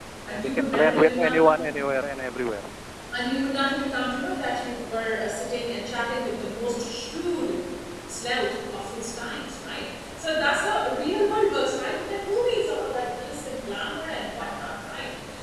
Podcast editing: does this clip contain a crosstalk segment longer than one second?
Yes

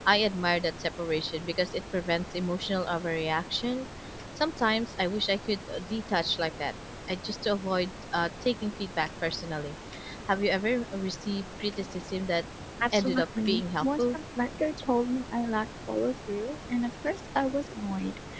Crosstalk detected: Yes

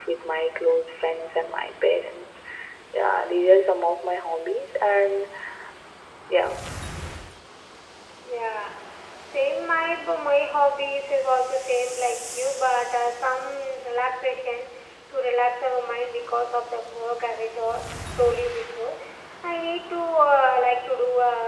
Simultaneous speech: No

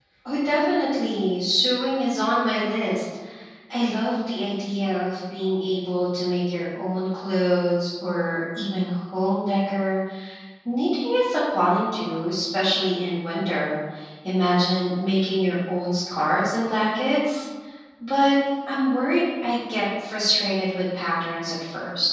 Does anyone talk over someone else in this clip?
No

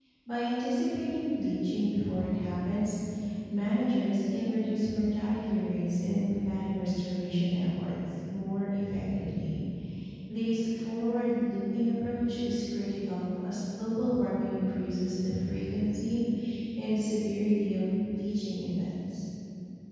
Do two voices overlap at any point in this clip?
No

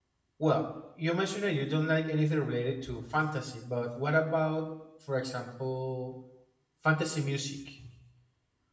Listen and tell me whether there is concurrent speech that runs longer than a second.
No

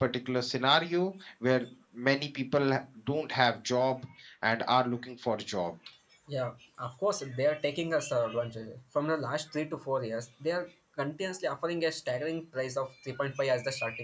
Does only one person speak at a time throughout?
Yes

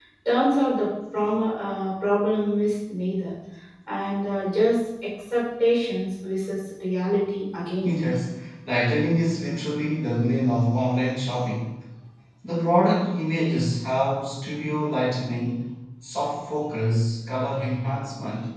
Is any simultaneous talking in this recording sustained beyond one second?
No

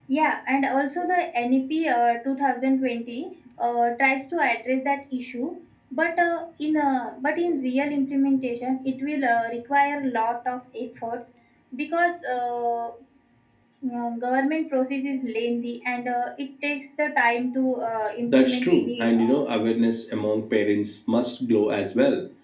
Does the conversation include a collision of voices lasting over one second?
Yes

